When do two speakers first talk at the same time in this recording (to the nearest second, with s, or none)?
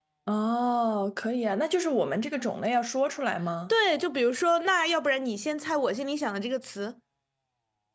none